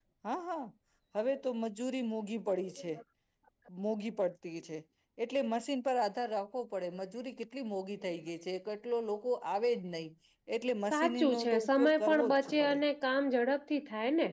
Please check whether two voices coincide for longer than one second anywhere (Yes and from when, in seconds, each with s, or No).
Yes, from 10.9 s